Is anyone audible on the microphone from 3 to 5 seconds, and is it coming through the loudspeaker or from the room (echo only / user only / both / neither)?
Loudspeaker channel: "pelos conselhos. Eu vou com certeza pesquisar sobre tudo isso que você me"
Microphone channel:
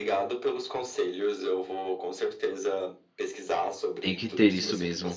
both